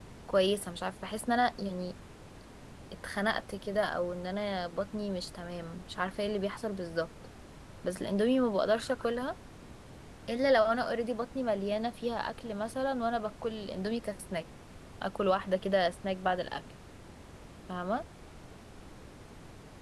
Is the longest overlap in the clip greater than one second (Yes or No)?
No